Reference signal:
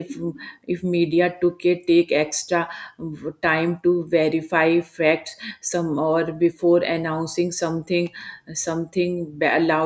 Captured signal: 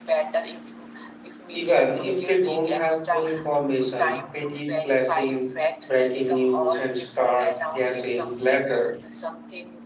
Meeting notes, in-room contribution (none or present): present